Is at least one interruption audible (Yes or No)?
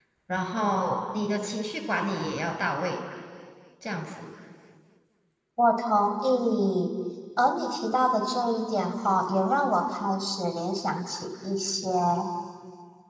No